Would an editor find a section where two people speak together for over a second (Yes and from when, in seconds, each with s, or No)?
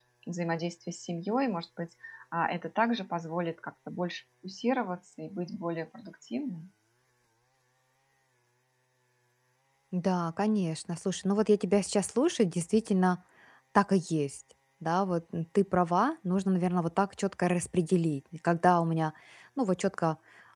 No